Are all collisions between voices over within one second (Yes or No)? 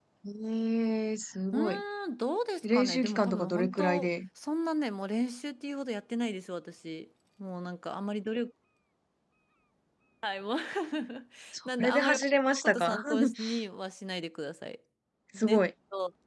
No